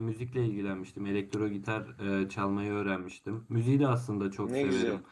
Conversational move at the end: listening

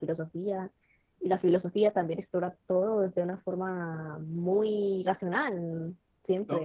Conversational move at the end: taking over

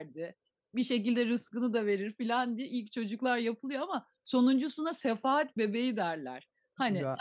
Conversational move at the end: listening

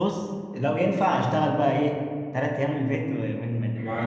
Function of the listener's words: taking over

